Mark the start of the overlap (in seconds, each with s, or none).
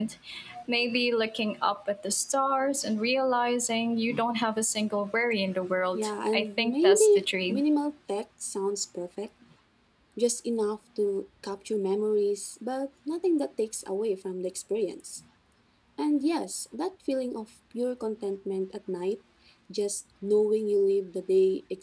5.9 s